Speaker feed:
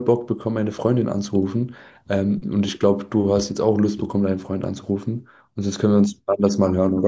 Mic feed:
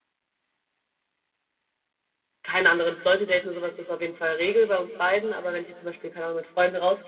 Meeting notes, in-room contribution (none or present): present